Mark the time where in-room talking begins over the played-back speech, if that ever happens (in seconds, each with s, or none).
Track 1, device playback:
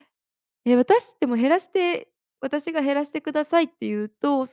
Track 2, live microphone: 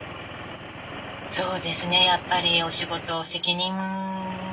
1.3 s